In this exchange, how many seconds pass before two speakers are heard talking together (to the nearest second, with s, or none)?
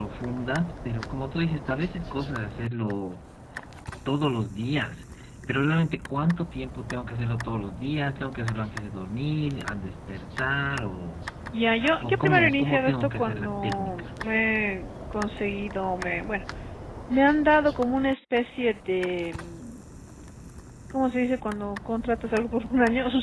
12 s